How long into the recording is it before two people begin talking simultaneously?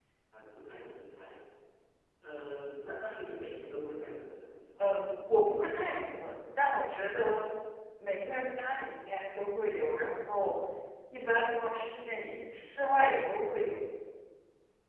none

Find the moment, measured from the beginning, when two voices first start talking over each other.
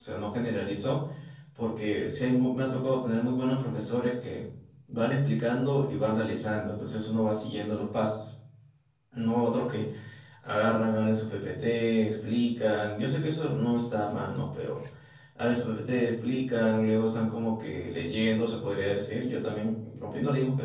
none

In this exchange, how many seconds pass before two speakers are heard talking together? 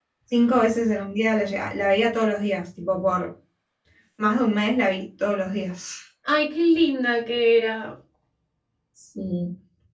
none

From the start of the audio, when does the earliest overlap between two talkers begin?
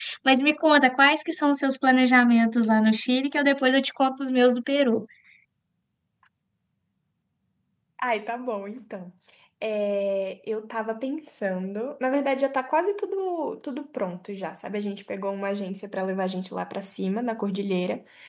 none

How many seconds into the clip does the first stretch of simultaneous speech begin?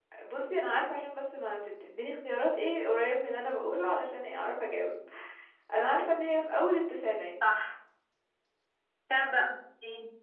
none

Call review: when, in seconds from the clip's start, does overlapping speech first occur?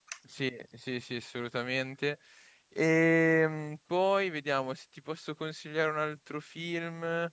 none

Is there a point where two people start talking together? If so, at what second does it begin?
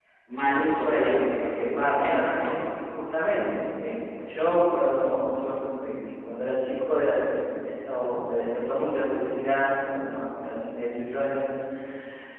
1 s

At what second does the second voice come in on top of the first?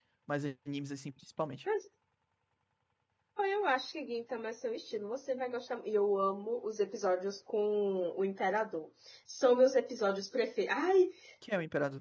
none

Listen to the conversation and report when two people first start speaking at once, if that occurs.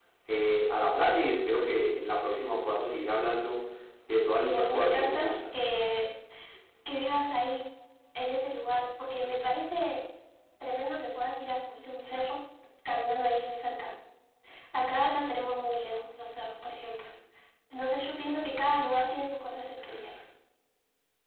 4 s

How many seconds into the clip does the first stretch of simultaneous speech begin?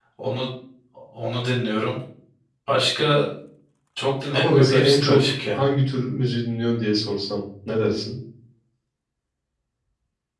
4 s

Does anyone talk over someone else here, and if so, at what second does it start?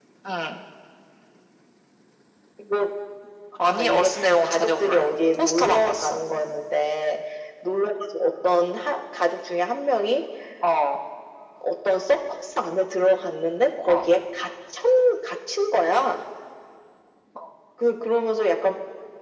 4 s

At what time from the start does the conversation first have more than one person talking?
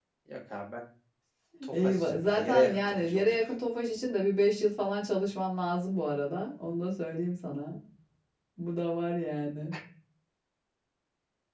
2 s

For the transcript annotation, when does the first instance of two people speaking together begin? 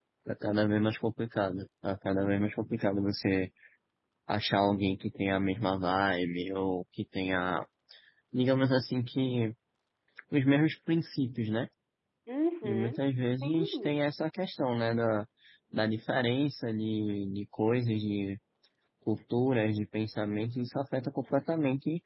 13 s

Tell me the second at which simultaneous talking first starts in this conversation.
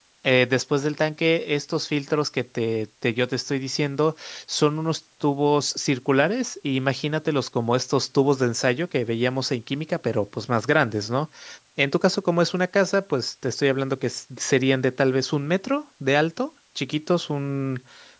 none

